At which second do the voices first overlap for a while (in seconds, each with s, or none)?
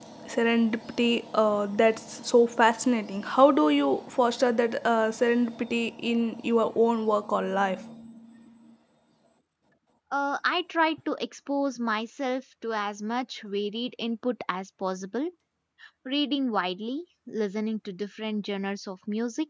none